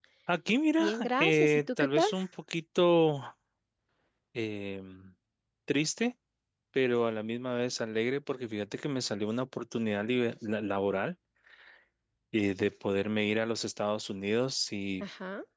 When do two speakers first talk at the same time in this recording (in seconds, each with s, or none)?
0.8 s